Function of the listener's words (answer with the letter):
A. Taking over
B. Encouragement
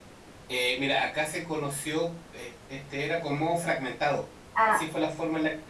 B